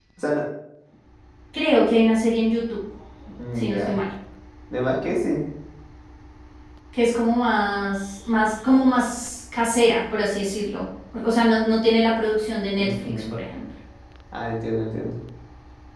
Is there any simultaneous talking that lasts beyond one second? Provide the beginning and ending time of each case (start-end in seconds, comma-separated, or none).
none